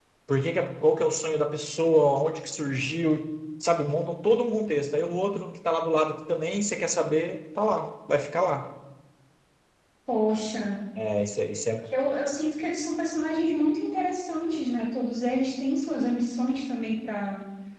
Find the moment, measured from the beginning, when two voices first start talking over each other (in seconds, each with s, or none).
none